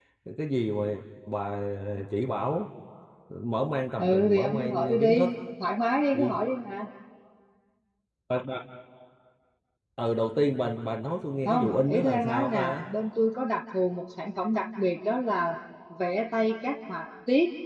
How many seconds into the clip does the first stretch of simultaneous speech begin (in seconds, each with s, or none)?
4.0 s